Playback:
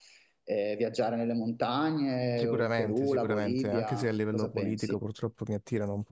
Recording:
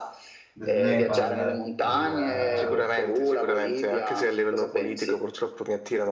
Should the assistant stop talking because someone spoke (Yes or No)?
Yes